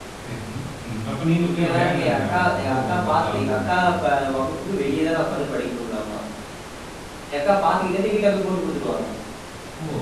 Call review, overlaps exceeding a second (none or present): present